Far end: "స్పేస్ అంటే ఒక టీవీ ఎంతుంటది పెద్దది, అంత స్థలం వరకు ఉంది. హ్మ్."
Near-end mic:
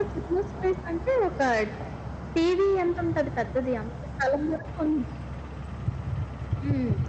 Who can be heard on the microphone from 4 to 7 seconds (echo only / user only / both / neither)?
echo only